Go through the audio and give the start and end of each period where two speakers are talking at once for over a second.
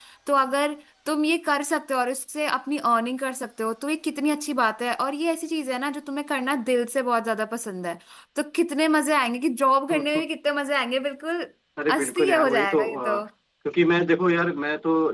11.9-13.2

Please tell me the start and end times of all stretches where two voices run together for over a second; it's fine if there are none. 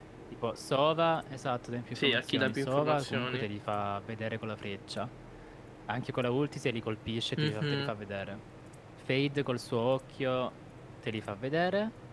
1.9-3.4

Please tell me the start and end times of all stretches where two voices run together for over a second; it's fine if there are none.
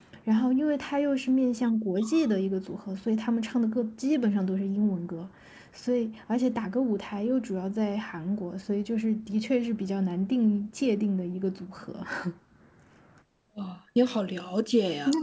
none

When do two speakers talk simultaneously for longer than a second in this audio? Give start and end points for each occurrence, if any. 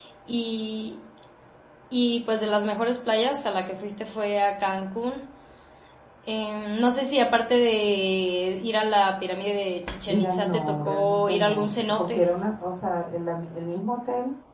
10.1-12.2

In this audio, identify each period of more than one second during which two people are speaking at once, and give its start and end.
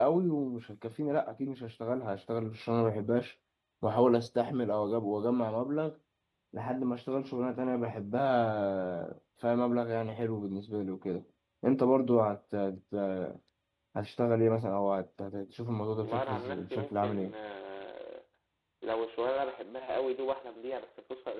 16.0-17.3

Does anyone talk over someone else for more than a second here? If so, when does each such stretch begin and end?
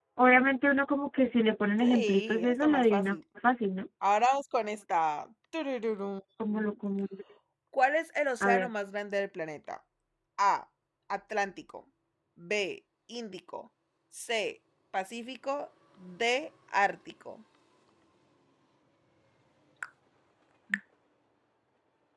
1.8-3.2

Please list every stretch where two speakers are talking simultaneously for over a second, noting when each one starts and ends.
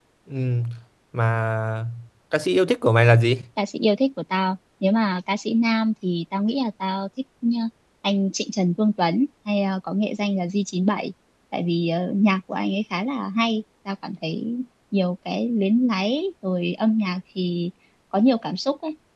none

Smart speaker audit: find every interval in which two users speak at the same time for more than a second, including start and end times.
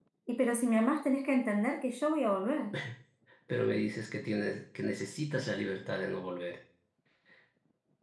none

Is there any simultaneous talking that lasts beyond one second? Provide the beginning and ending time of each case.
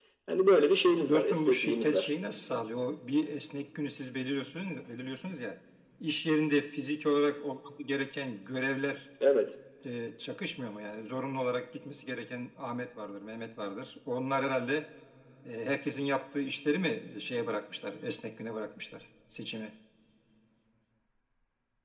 0.9-2.1

